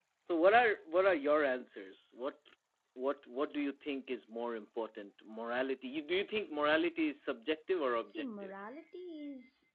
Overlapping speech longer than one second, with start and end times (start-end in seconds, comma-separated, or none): none